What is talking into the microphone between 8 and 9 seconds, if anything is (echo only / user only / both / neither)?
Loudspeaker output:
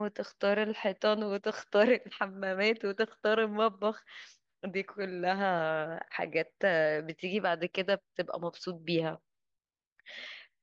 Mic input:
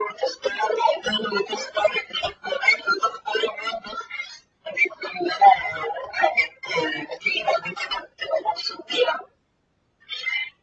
echo only